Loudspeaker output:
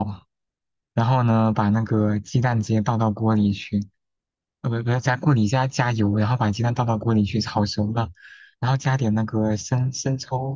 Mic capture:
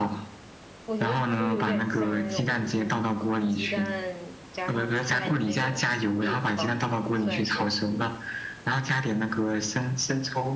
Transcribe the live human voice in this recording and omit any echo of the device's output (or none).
我觉得它就有点像那种就是鸡蛋加上菜的那种饼吧，算是。